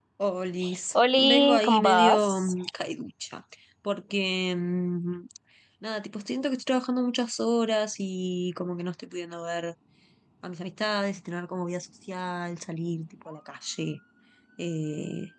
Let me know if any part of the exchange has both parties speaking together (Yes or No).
Yes